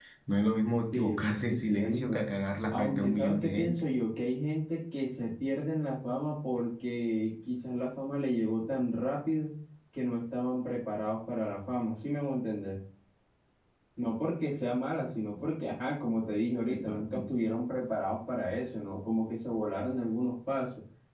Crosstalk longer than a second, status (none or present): present